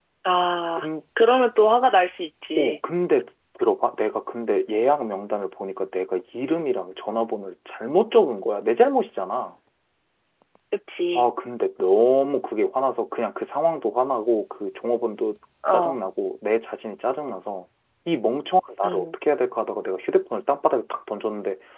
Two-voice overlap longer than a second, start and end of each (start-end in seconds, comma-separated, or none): none